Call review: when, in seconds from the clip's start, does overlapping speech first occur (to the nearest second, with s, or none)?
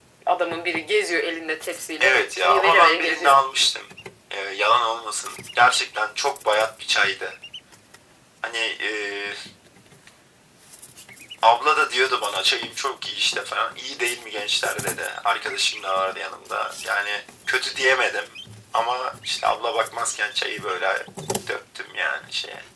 2 s